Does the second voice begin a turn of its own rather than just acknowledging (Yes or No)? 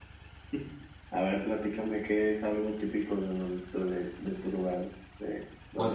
Yes